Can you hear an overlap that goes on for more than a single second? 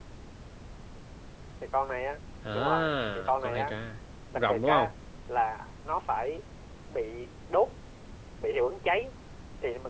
Yes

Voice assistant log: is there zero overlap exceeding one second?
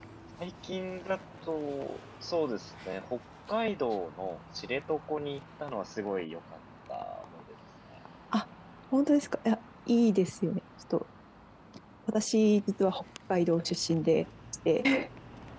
Yes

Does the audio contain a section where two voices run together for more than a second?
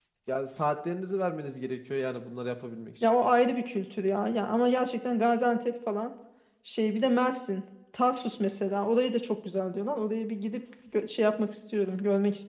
No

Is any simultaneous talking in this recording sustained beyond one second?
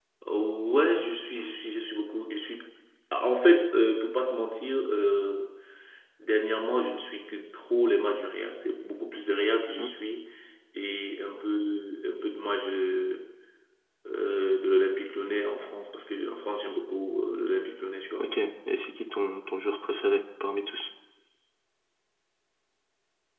No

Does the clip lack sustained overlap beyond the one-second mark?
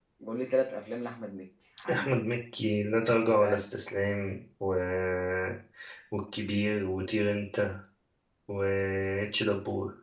Yes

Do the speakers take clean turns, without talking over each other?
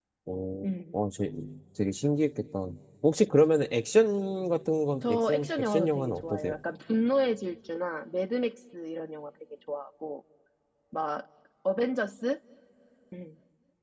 No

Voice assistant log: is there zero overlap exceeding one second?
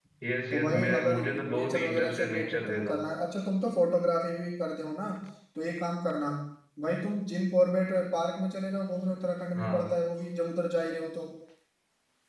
No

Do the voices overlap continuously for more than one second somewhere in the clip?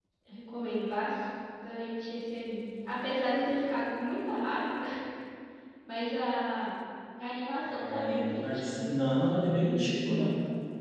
Yes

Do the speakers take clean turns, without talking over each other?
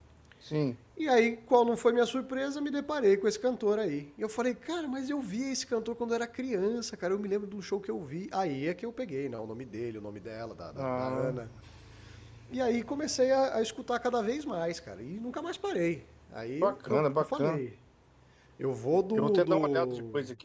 No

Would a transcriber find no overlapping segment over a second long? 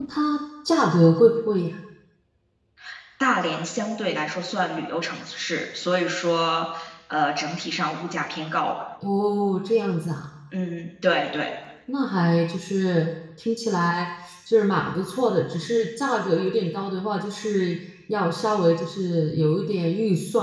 Yes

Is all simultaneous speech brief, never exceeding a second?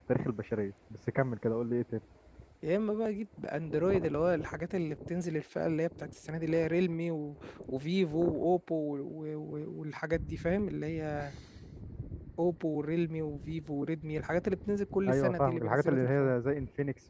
No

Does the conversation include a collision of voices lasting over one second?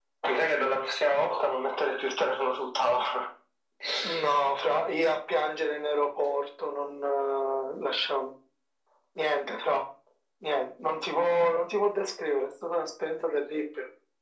No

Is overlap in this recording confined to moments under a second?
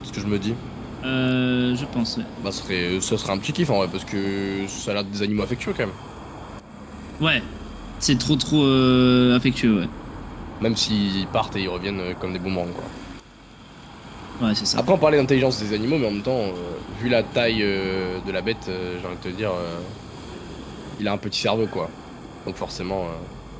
Yes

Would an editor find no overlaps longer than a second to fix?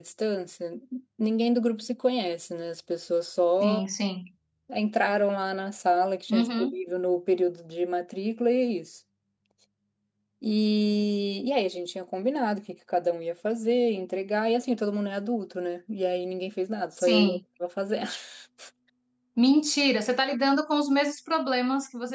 Yes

